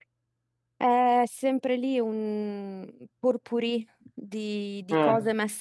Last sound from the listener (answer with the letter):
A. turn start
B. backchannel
B